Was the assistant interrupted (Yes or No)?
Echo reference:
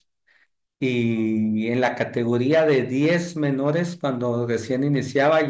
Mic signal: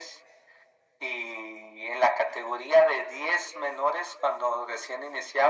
No